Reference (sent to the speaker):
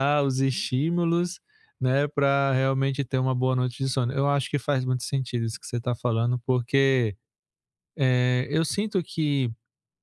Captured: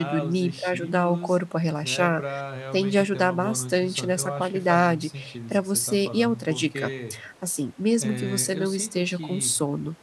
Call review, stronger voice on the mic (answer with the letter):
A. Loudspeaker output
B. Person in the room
B